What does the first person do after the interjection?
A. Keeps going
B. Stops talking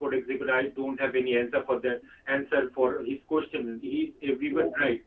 A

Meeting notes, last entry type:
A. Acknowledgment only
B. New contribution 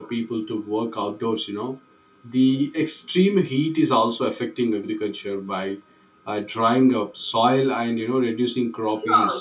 B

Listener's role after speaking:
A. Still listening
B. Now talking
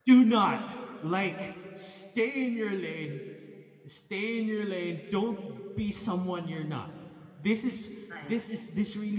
A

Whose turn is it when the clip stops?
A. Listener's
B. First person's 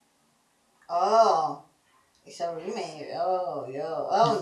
A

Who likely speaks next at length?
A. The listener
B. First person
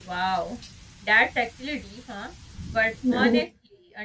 B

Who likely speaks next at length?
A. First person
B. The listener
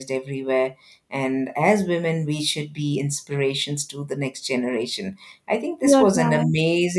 A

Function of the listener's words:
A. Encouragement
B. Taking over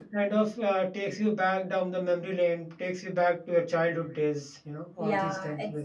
B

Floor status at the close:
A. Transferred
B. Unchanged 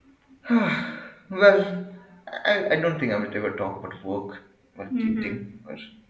B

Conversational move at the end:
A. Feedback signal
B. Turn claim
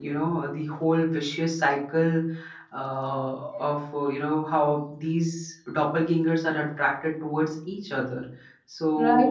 B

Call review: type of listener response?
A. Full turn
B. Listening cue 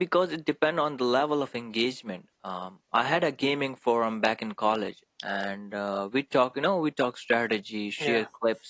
B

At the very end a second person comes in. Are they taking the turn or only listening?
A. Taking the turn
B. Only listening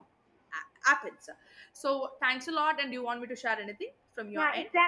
A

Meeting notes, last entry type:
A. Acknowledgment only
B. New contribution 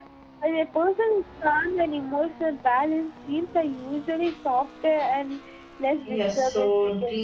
B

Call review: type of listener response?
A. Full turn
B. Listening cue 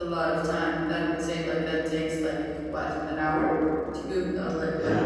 A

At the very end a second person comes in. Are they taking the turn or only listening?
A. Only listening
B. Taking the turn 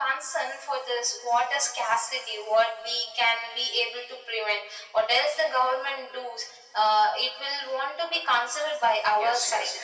B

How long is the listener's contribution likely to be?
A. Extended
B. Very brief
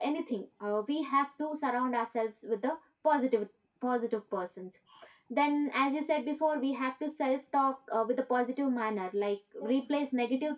B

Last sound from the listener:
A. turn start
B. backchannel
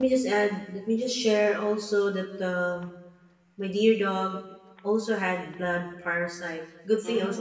B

